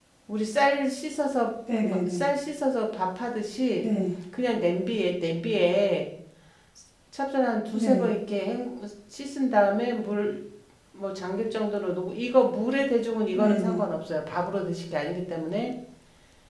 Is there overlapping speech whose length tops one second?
No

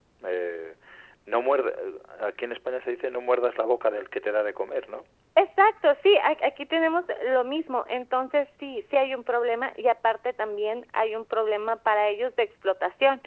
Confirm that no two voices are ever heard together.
Yes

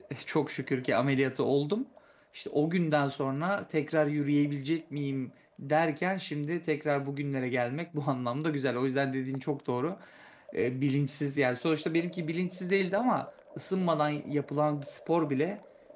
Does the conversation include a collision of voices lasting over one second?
No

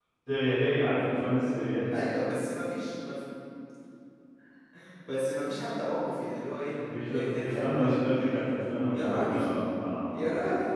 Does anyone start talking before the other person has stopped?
Yes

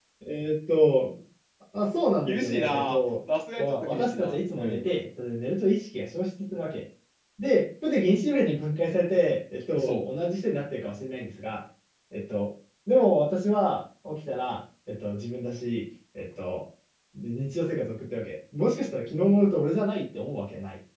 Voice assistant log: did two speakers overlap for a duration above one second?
Yes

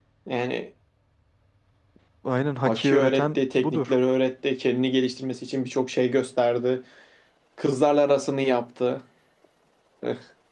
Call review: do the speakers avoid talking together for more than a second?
No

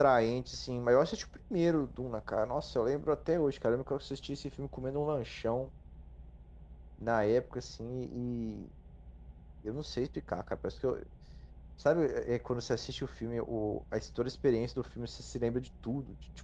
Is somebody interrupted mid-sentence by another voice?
No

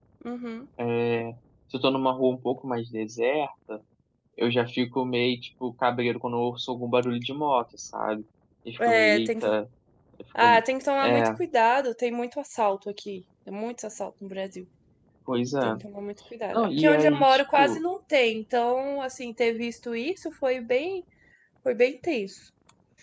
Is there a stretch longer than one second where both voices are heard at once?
Yes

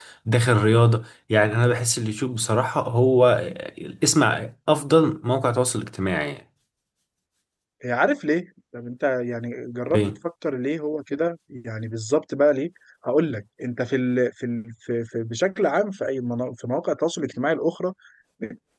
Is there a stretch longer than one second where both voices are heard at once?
No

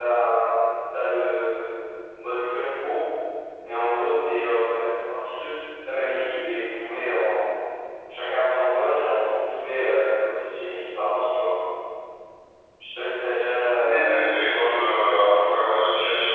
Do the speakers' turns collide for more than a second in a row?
Yes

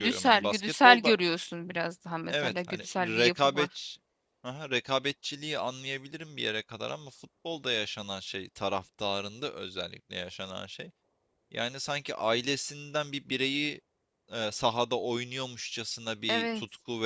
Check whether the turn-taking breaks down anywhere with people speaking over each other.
Yes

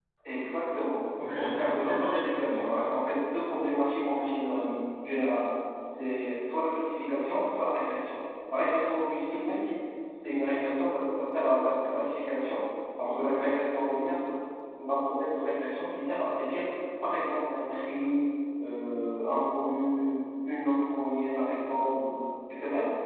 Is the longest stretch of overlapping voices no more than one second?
No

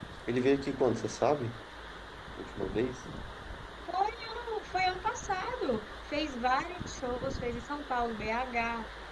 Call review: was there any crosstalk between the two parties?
No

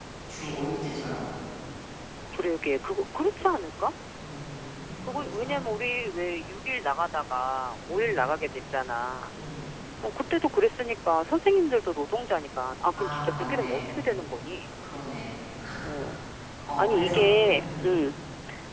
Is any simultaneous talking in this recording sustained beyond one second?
Yes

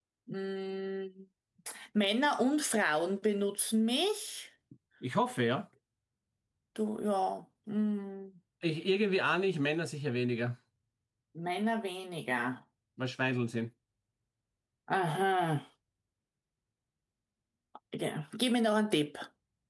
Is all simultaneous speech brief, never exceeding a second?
Yes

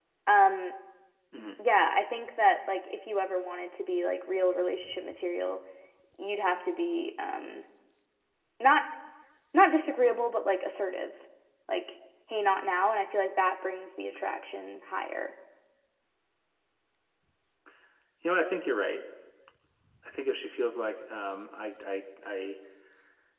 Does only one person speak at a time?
Yes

